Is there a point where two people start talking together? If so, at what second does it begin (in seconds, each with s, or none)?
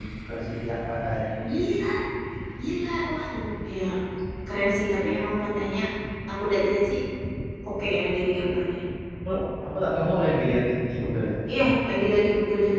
none